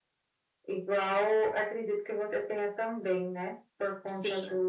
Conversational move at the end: listening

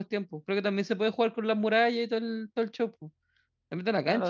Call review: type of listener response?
taking over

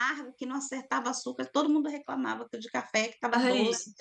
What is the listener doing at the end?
listening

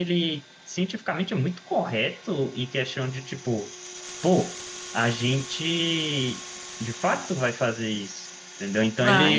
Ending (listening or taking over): listening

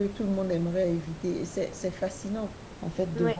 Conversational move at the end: listening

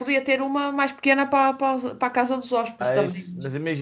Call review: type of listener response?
taking over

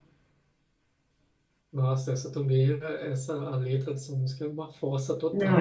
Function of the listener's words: taking over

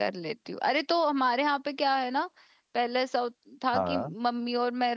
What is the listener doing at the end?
listening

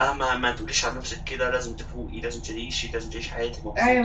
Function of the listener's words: taking over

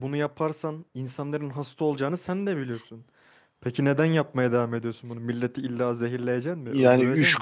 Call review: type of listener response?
taking over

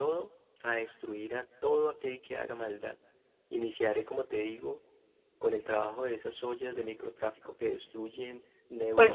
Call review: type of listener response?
taking over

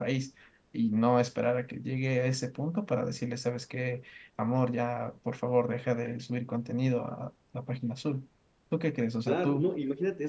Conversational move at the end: taking over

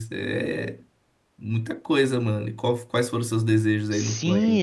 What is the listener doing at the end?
taking over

